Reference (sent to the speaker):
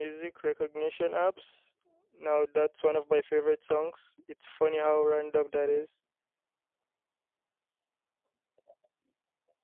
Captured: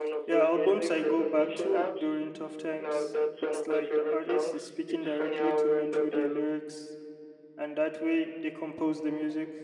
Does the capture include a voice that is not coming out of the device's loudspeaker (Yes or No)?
Yes